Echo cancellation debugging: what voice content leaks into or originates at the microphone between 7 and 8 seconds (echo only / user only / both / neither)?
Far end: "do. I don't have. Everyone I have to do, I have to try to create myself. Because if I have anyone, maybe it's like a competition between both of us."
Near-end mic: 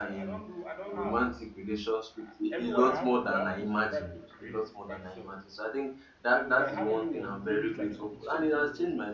both